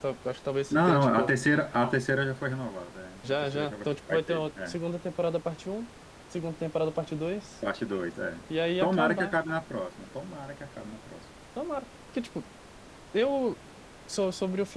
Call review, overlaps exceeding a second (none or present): present